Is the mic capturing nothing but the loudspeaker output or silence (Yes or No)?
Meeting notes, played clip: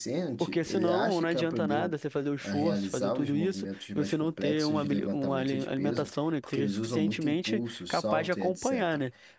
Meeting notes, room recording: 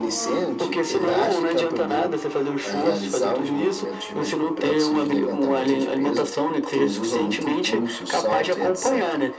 Yes